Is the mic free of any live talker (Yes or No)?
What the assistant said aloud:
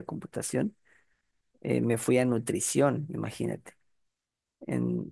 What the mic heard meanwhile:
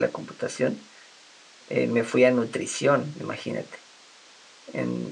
Yes